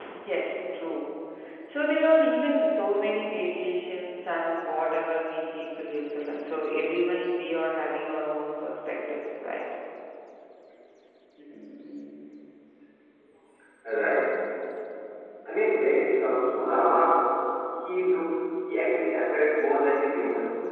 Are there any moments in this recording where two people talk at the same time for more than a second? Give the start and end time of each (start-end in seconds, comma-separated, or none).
none